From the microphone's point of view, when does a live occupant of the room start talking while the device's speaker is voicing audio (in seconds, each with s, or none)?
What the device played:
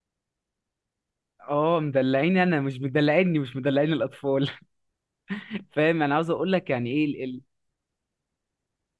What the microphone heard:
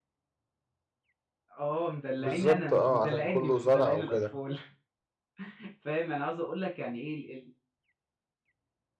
2.2 s